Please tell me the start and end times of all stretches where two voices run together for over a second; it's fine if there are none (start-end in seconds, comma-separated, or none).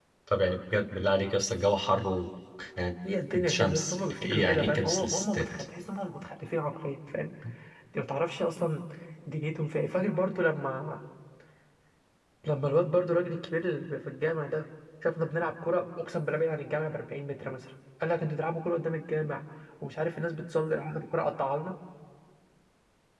3.5-5.5